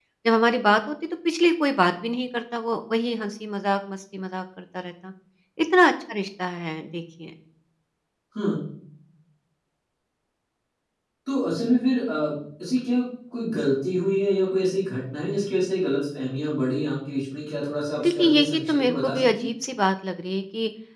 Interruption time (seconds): 18.0 s

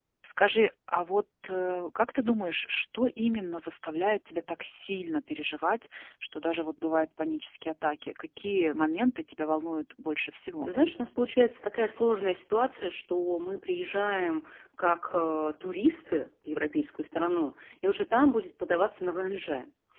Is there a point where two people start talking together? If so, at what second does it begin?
none

